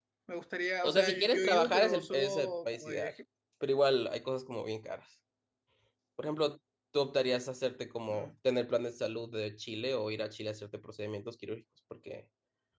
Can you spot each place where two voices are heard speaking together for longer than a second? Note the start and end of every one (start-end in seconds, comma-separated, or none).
0.8-3.1